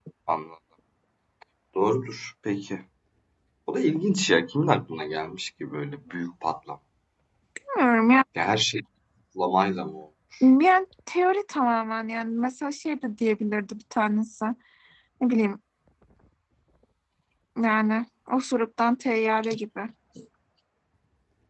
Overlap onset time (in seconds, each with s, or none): none